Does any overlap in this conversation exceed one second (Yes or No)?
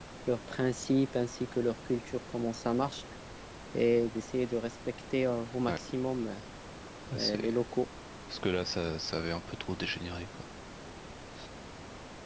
No